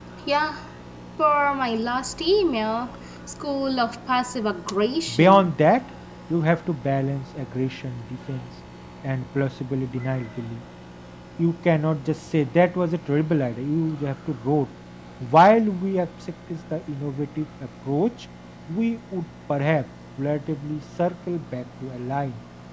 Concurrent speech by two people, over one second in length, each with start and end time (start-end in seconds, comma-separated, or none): none